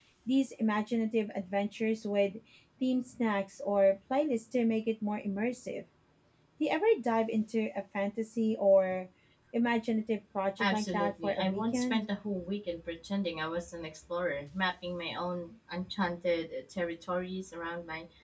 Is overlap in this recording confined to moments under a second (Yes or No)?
No